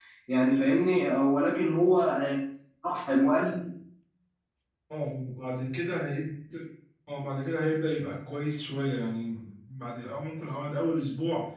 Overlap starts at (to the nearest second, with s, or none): none